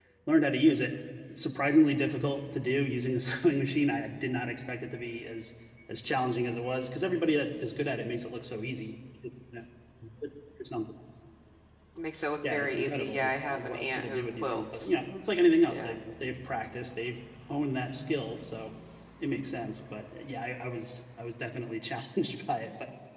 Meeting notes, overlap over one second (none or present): present